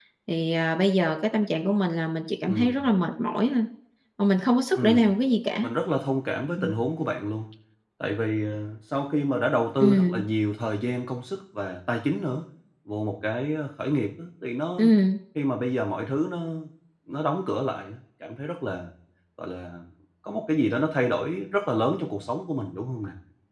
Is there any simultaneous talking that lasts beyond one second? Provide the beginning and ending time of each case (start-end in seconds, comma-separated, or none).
none